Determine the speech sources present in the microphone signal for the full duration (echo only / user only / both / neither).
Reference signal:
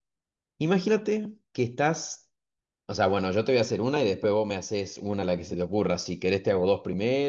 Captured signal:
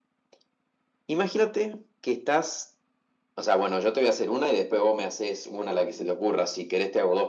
echo only